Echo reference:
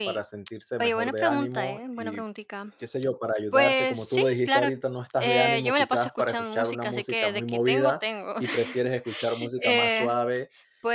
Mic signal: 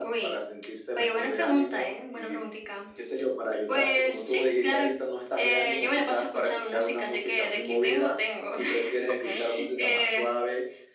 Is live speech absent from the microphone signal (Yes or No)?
No